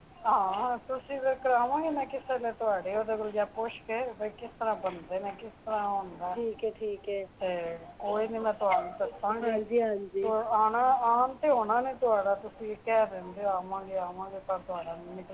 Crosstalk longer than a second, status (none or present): none